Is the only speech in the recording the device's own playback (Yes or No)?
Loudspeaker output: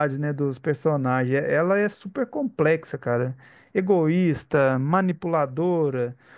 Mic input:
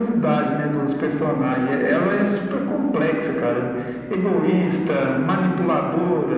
Yes